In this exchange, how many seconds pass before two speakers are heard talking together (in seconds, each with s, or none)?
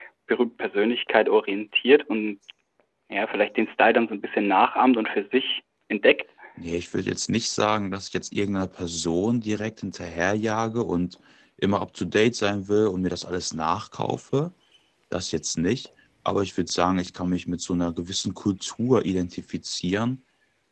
none